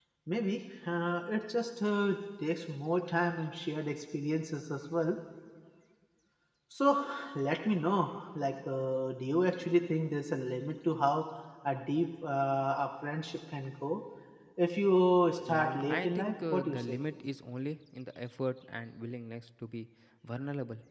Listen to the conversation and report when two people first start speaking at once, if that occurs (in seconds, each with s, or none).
15.5 s